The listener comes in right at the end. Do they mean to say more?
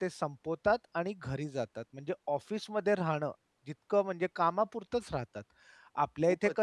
No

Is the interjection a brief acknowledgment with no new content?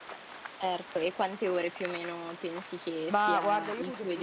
No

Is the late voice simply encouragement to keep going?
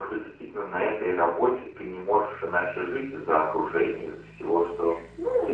No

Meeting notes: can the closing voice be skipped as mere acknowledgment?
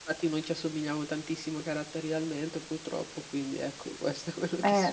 No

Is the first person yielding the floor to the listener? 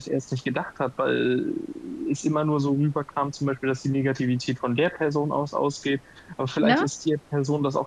No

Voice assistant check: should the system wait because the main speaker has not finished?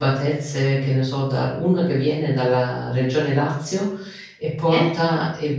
Yes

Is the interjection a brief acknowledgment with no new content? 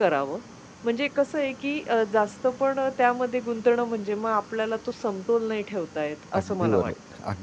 No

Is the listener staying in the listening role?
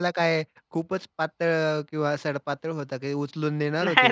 No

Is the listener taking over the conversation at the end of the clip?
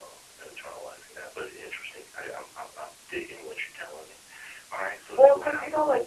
Yes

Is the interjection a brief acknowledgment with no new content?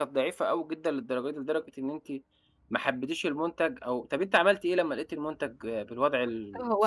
No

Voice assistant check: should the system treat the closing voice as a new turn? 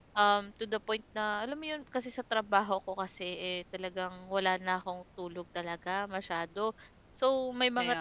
No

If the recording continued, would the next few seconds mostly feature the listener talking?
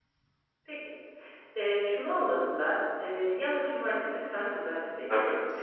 No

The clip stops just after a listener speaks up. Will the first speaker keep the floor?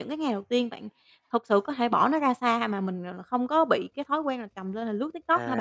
No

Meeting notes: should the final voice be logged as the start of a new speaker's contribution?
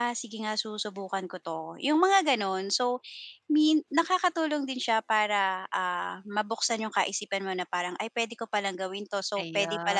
No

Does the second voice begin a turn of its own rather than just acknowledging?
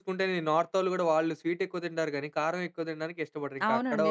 Yes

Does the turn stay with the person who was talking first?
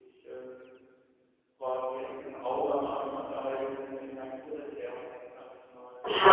No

